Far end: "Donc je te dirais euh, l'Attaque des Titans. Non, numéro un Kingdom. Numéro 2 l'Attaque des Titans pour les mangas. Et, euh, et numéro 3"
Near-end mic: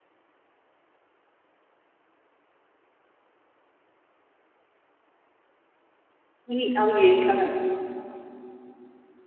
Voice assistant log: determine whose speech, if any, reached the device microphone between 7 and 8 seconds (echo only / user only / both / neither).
user only